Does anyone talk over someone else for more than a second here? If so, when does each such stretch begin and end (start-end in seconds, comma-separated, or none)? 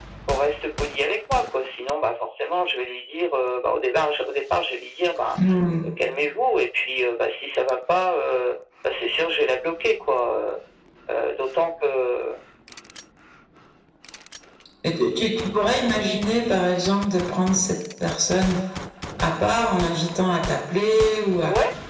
none